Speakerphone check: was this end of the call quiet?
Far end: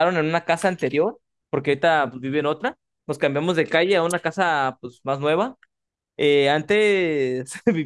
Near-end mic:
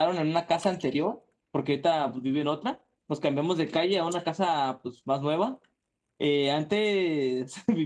Yes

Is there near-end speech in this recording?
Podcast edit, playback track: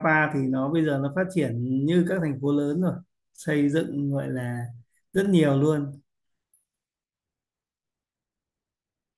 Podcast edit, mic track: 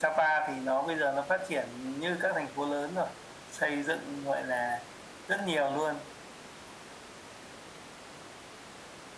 No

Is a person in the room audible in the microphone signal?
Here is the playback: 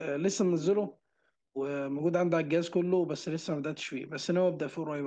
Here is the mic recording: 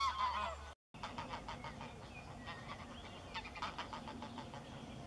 No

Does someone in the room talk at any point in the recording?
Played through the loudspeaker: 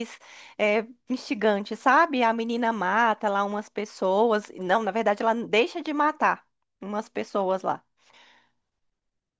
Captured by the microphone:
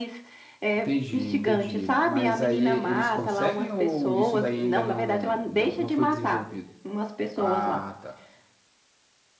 Yes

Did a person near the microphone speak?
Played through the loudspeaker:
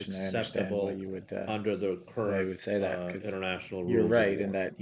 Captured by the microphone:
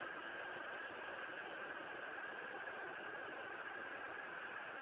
No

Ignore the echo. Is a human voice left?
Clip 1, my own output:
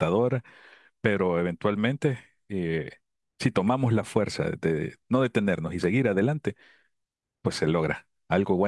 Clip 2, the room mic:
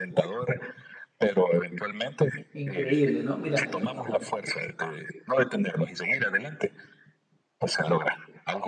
Yes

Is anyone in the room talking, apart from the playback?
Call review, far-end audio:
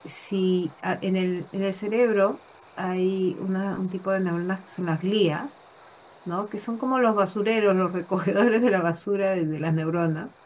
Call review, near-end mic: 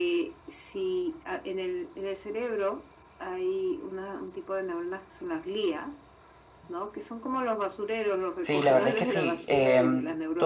Yes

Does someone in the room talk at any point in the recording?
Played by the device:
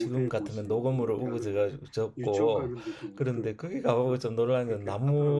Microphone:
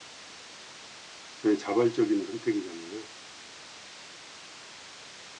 Yes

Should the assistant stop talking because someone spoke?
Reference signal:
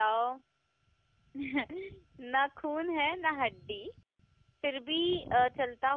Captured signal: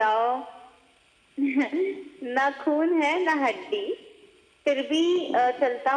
No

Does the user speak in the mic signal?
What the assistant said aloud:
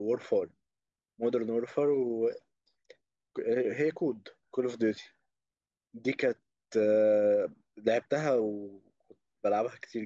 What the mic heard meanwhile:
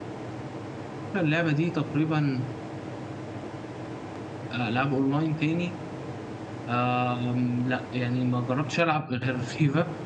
Yes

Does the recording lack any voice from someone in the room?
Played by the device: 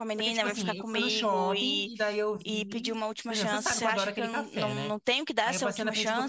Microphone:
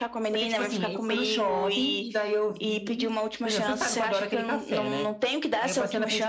Yes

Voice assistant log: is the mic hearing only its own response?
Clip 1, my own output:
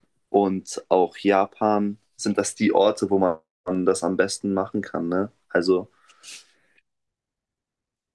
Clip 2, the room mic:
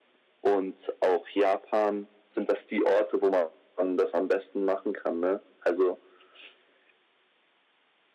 Yes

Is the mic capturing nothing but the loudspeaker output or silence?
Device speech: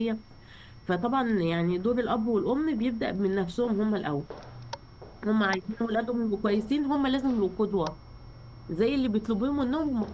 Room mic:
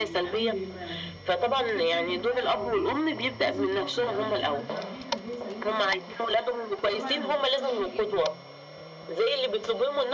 No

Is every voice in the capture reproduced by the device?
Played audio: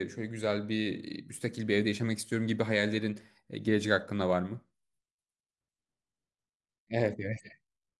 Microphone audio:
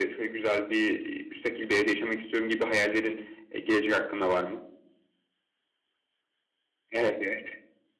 Yes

